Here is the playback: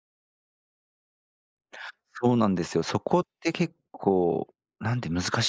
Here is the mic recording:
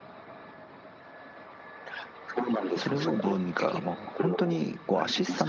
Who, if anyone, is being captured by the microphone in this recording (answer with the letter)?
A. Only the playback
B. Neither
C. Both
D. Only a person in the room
C